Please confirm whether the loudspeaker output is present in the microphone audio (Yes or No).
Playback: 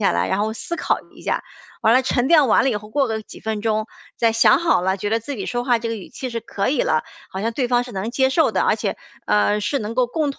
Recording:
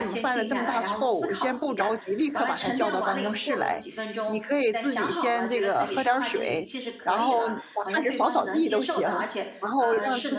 Yes